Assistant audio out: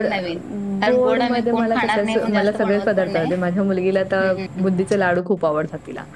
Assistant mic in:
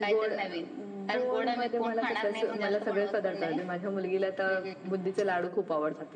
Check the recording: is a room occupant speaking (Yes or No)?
No